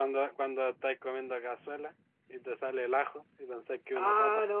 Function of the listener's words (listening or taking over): taking over